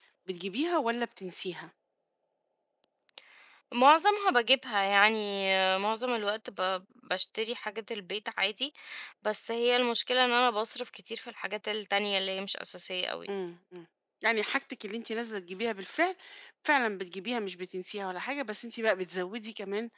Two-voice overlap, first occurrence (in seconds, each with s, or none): none